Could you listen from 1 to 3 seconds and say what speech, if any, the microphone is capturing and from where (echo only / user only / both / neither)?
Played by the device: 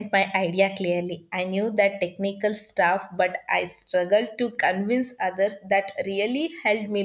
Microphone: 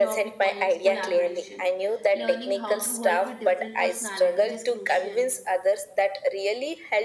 both